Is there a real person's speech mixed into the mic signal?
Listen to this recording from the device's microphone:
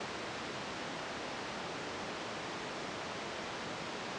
No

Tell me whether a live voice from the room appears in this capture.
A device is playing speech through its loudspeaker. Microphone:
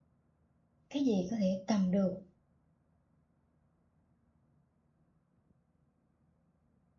Yes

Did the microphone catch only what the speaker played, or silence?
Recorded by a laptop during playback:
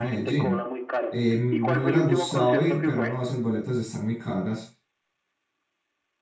No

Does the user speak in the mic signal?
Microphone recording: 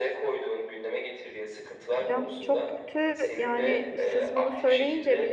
Yes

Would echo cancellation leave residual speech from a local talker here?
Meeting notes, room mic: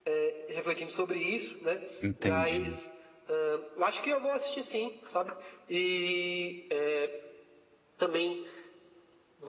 Yes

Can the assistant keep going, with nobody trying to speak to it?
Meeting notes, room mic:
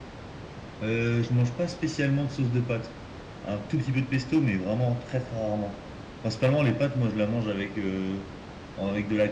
No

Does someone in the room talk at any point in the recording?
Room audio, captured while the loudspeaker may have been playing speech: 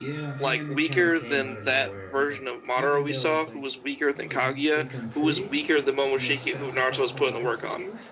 Yes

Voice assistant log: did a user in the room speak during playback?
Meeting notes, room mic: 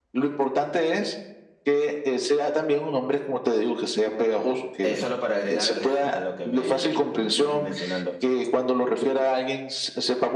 Yes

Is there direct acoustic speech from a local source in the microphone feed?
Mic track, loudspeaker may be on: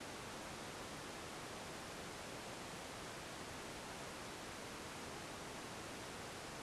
No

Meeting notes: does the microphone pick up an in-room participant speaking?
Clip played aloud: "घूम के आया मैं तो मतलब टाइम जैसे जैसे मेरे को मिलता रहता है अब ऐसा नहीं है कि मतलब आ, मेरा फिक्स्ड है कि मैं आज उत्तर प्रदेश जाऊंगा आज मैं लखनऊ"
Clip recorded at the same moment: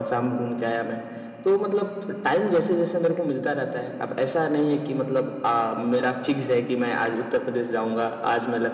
No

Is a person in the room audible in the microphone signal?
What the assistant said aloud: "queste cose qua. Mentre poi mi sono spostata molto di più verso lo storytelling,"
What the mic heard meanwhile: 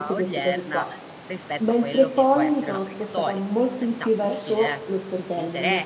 Yes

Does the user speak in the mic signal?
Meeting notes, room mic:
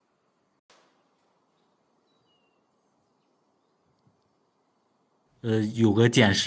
Yes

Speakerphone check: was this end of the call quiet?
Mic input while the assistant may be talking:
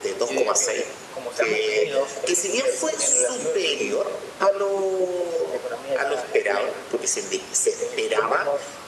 Yes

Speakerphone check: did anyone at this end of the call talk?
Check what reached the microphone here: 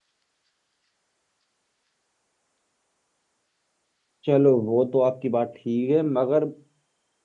Yes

